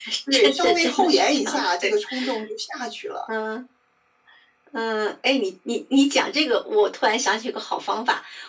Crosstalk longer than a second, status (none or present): present